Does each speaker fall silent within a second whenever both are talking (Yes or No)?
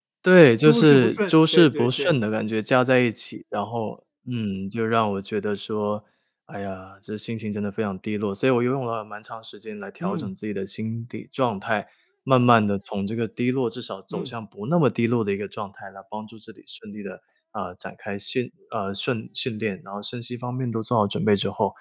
No